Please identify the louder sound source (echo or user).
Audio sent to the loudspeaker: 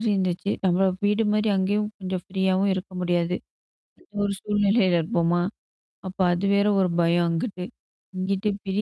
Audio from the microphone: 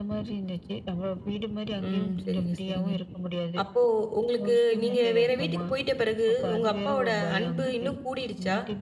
user